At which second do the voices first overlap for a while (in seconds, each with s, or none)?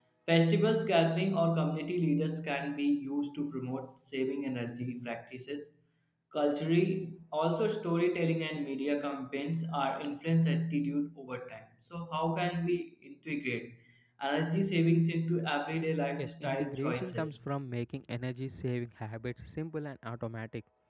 16.2 s